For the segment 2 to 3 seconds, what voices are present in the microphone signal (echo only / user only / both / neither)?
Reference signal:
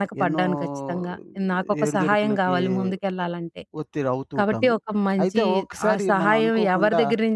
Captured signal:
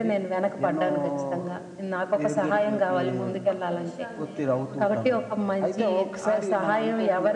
echo only